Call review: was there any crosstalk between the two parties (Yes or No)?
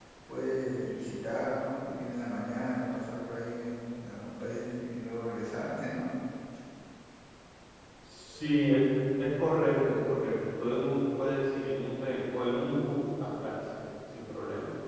No